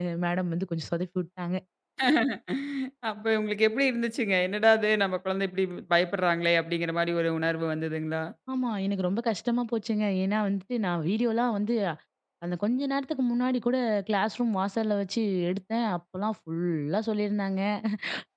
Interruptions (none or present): none